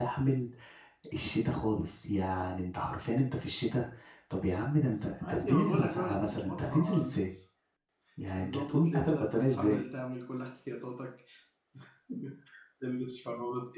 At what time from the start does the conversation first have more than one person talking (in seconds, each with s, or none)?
5.2 s